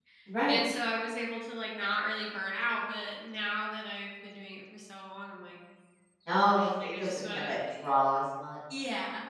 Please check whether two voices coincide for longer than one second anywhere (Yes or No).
Yes